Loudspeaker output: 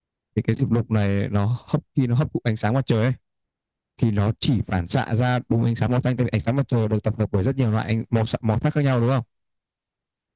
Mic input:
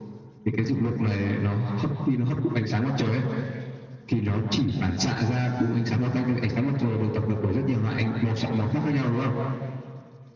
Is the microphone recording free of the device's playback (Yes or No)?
No